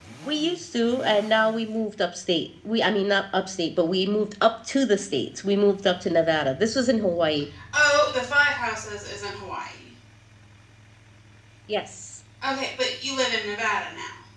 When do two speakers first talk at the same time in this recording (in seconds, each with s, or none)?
none